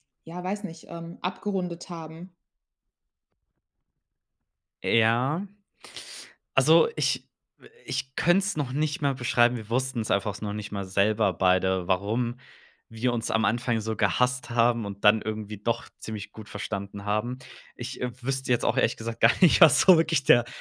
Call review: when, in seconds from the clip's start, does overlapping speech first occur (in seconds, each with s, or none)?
none